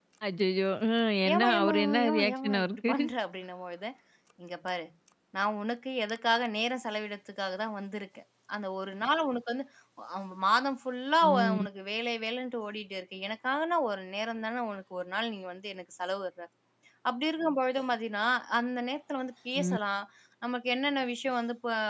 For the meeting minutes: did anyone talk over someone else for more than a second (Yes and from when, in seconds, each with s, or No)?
Yes, from 1.3 s